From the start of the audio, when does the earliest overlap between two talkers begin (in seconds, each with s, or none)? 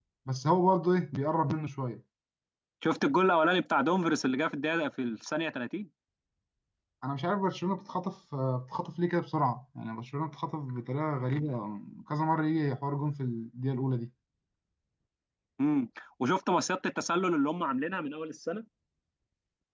none